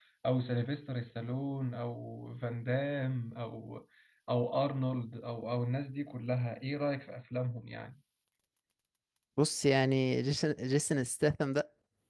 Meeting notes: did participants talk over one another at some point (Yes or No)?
No